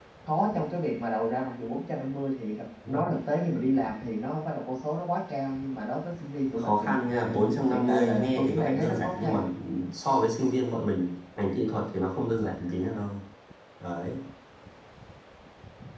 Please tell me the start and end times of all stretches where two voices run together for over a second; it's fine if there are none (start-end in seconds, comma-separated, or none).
7.7-9.4